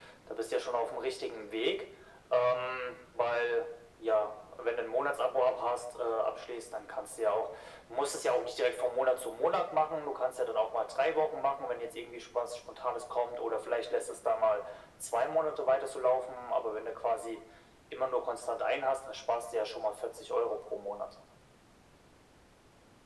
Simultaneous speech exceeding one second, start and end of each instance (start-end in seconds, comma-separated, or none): none